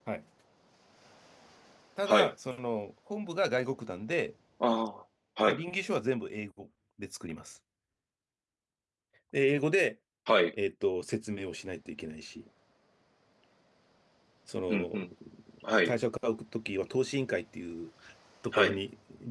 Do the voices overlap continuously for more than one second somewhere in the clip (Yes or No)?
No